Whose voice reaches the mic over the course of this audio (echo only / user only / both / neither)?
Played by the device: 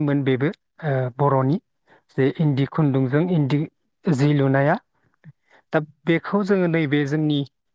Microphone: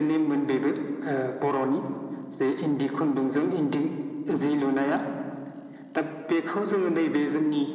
echo only